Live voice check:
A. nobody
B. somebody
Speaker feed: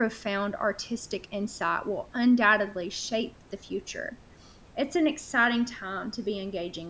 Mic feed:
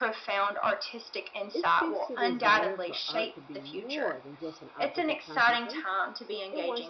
B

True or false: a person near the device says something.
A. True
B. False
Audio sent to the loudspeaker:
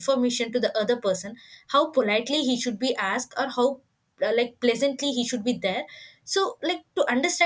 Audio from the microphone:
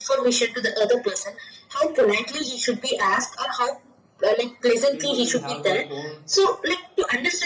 A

